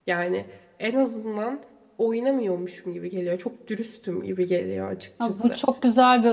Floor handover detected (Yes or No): Yes